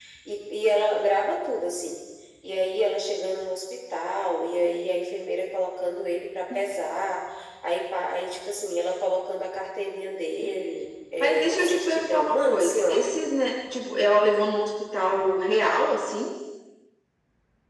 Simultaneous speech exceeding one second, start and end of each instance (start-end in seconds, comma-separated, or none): 11.2-13.0